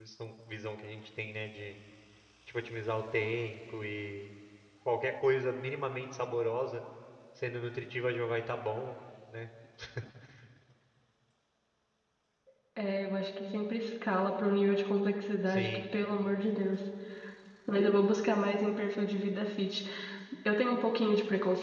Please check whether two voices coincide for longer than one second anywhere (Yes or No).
No